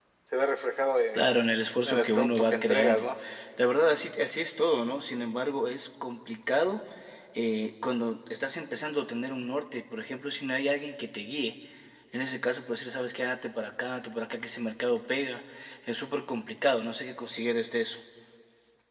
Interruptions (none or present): present